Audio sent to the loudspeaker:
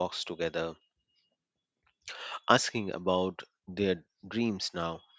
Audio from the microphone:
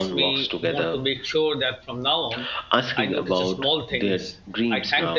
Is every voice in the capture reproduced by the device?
No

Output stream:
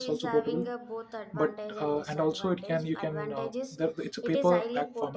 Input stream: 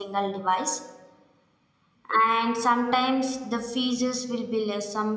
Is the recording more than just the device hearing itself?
Yes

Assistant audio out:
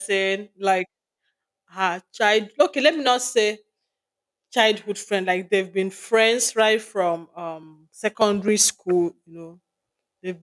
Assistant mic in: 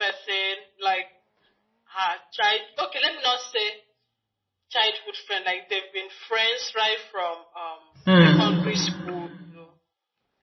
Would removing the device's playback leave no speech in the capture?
No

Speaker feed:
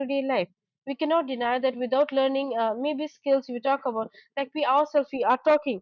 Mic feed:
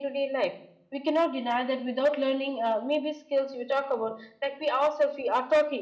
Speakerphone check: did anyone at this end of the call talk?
No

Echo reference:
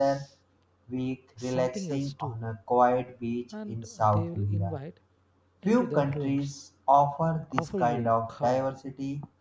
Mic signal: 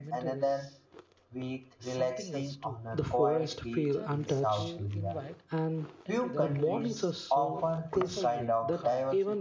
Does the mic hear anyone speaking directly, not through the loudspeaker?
Yes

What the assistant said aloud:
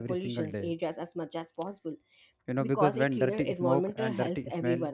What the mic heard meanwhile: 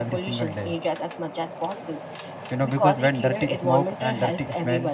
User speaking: No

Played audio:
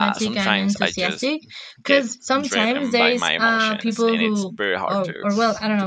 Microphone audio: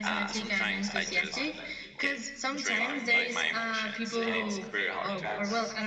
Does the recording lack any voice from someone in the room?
No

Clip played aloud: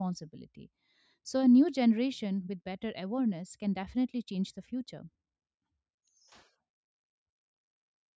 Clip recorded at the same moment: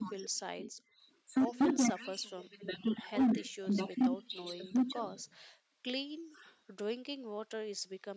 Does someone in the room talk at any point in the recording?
Yes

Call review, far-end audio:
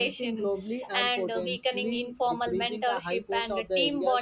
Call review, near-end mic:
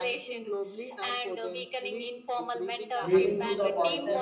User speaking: Yes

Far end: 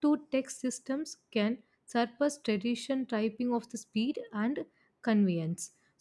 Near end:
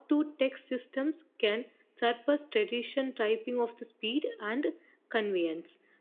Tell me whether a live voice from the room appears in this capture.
No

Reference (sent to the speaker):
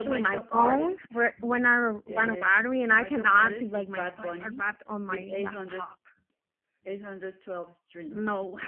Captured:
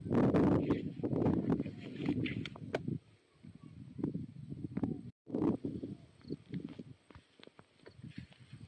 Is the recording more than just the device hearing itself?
No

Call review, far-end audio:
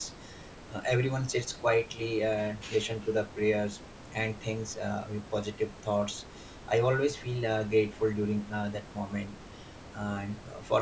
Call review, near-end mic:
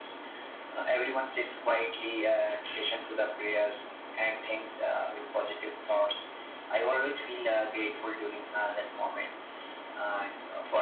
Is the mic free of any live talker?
Yes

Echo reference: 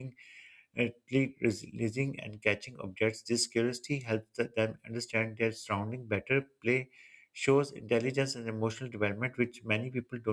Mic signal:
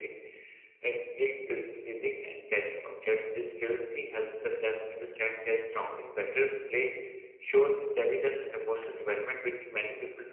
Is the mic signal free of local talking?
Yes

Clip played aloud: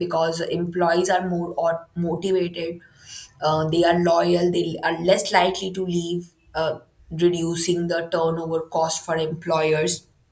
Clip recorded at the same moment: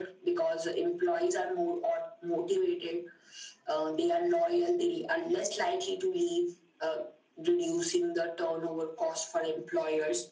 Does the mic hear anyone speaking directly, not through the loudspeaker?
No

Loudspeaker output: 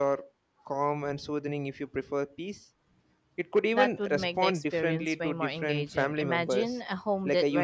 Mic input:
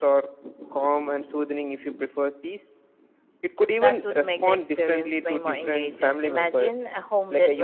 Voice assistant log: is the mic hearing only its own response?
Yes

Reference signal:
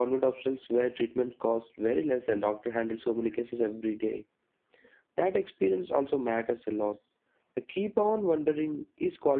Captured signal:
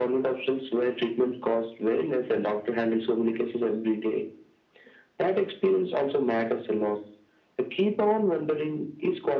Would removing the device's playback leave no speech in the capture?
Yes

